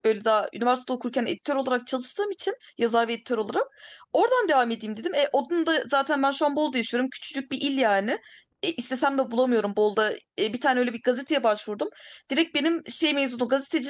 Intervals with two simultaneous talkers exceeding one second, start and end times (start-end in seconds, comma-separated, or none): none